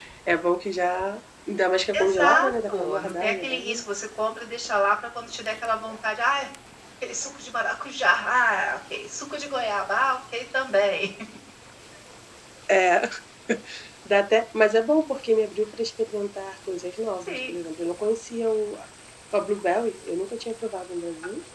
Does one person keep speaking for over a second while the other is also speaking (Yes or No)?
Yes